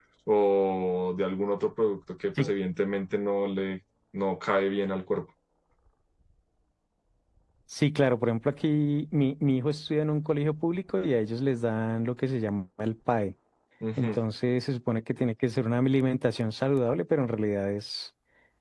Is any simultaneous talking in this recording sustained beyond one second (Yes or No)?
No